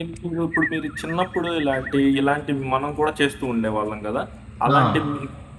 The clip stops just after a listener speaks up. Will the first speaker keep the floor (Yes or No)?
Yes